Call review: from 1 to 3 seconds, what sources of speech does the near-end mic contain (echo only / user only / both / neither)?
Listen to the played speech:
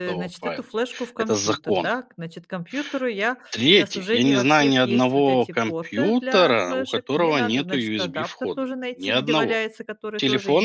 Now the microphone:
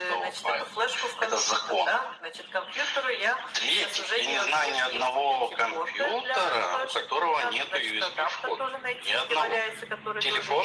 echo only